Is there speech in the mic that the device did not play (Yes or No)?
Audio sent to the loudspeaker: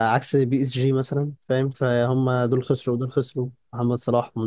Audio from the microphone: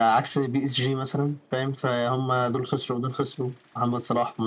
No